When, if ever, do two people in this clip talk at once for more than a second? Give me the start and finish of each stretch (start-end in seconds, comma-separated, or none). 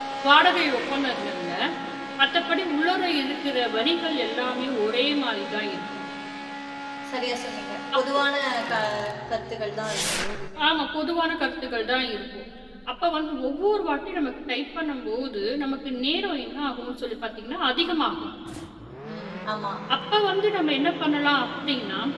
none